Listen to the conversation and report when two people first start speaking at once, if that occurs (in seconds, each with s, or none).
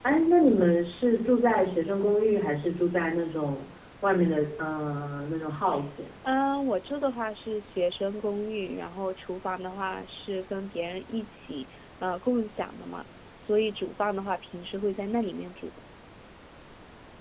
none